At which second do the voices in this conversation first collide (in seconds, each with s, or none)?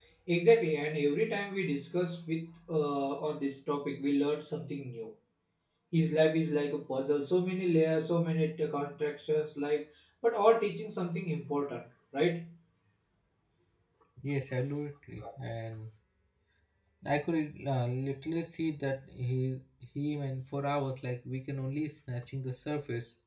none